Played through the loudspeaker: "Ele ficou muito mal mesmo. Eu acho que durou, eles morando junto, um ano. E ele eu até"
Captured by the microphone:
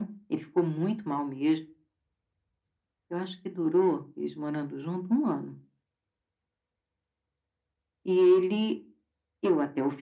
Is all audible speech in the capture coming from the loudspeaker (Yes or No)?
Yes